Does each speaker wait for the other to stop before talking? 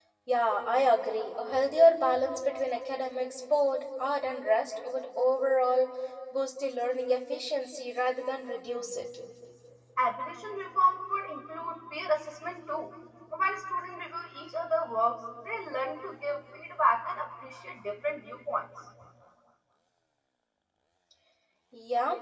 Yes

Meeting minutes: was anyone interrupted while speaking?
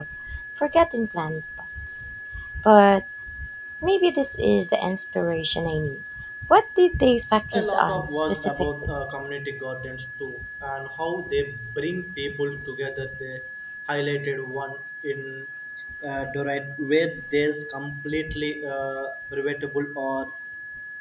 Yes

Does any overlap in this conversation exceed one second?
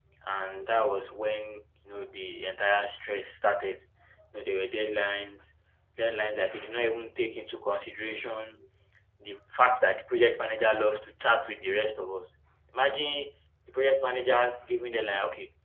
No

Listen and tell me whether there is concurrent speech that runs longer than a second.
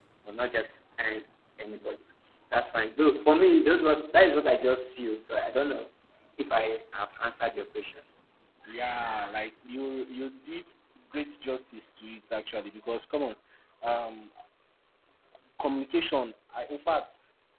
No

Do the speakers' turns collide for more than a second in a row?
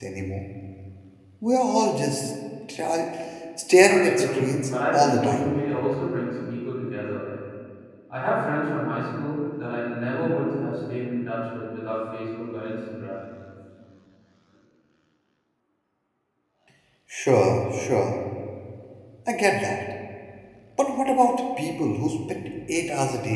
Yes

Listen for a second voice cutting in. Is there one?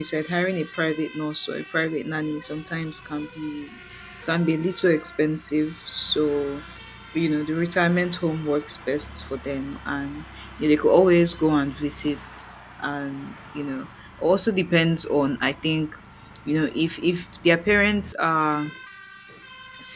No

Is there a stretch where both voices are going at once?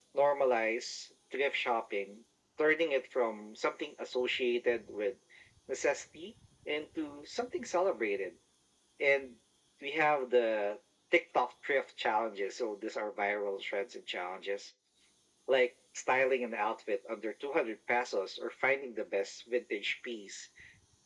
No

